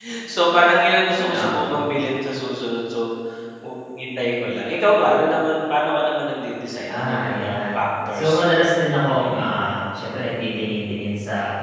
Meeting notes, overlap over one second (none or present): present